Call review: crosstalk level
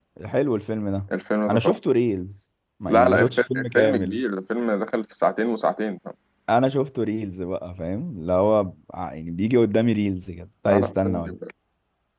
present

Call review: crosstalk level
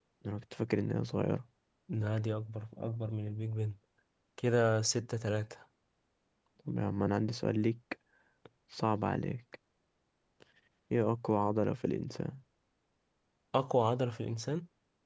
none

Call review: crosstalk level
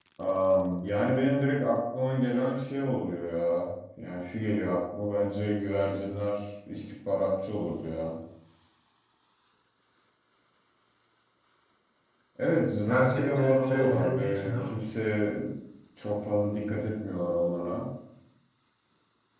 present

